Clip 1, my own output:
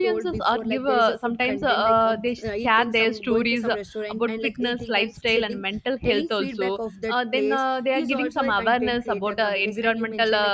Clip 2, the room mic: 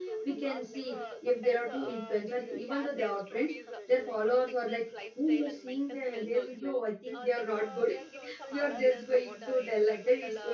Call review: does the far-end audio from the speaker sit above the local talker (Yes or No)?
No